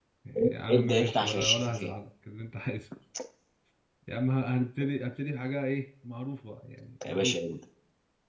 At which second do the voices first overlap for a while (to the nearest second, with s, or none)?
1 s